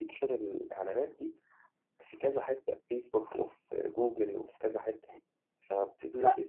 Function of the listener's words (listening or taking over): listening